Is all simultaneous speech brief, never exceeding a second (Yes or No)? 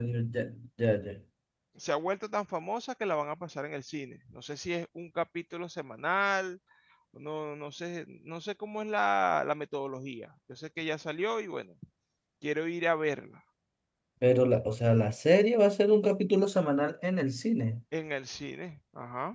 Yes